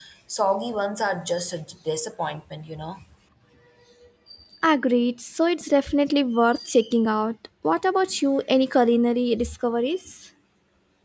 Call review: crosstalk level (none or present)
none